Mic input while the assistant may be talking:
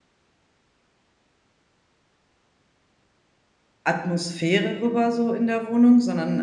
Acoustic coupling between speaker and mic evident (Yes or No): No